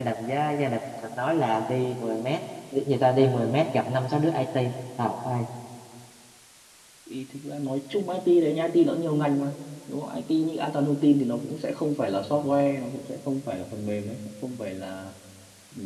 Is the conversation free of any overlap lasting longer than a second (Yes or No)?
Yes